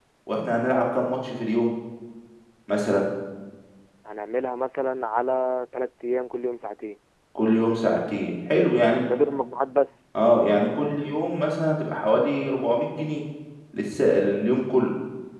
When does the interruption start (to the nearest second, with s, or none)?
none